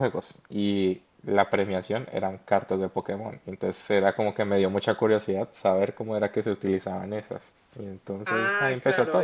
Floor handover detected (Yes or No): Yes